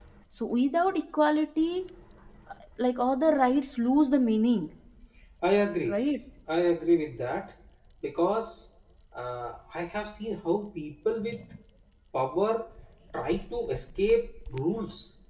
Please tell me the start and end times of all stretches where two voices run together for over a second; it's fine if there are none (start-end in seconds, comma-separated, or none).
none